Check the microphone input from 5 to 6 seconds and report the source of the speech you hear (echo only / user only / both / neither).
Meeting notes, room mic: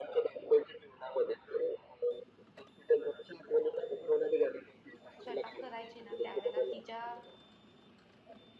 both